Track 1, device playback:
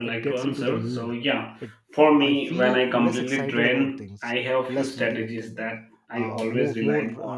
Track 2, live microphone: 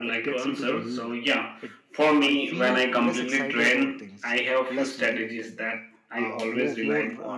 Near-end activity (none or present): none